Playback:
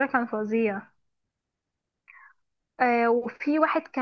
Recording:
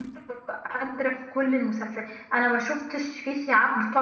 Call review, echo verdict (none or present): none